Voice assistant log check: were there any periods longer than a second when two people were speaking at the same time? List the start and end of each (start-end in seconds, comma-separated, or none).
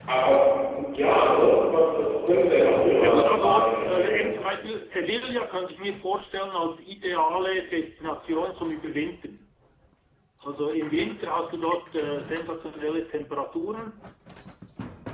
3.0-4.2